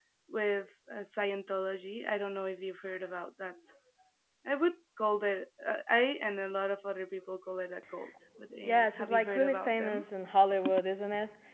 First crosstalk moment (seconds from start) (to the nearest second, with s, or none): 9 s